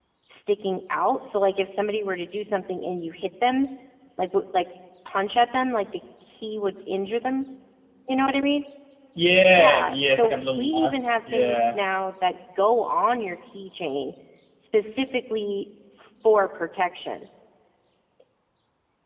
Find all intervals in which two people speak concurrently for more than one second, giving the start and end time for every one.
9.5-11.8

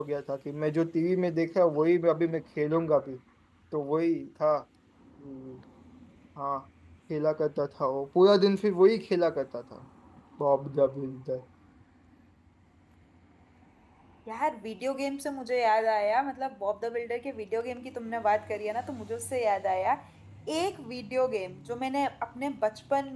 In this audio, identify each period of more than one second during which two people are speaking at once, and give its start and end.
none

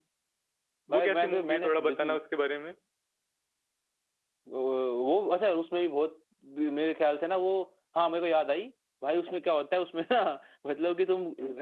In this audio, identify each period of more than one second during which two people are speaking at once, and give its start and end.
0.9-2.2

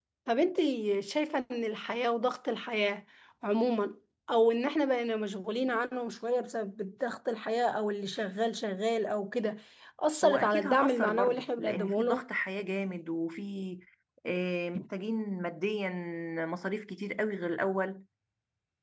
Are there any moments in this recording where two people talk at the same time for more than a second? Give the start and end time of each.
10.2-12.3

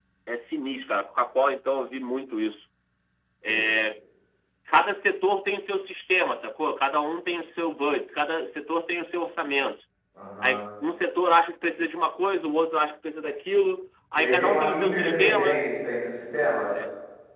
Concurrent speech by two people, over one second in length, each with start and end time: 14.2-15.6

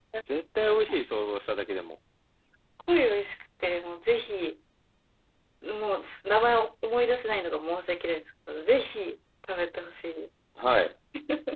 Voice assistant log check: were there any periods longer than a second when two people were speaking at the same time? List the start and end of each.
none

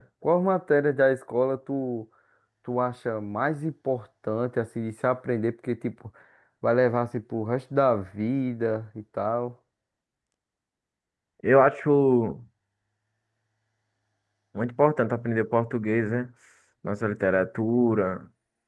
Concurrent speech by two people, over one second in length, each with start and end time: none

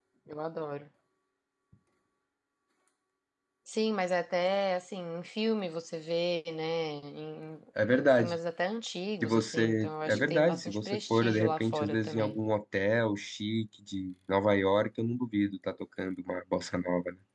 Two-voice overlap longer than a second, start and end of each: 9.2-12.4

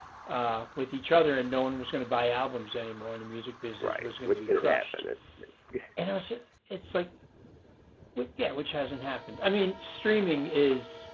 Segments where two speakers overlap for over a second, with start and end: 3.8-5.0

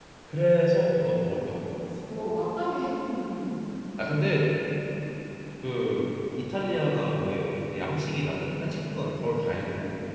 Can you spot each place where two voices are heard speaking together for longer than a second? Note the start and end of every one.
none

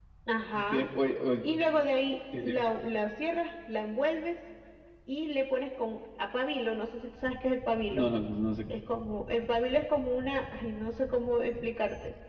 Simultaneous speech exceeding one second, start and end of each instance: none

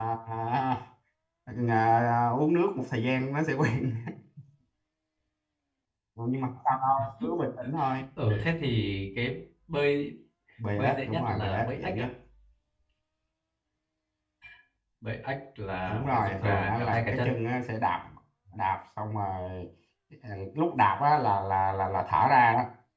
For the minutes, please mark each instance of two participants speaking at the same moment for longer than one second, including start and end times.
10.8-12.1, 15.9-17.3

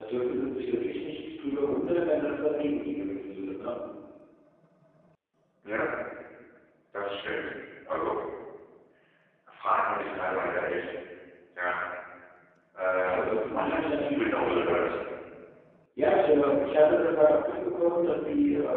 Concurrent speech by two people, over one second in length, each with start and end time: 13.0-14.8

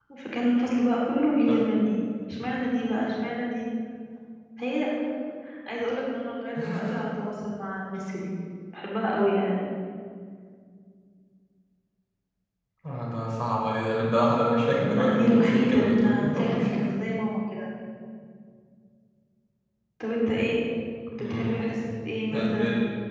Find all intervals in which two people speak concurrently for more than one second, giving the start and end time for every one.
14.8-16.6

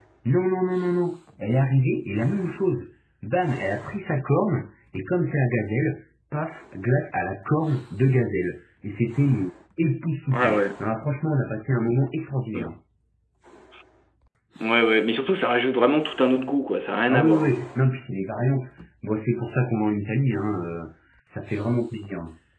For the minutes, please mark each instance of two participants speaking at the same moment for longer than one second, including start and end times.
none

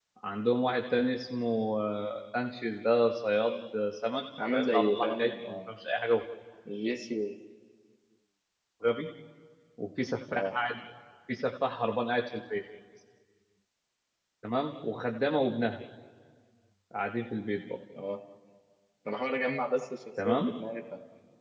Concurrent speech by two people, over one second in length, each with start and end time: 4.5-5.7

